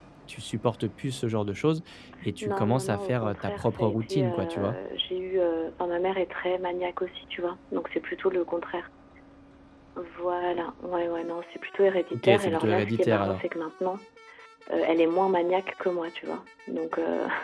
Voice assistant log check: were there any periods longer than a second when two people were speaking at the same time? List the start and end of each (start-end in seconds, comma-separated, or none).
2.4-4.8, 12.1-13.4